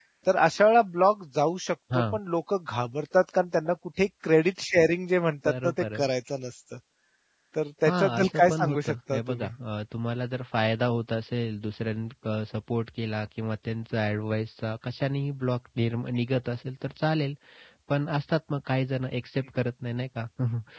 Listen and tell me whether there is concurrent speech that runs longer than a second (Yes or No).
Yes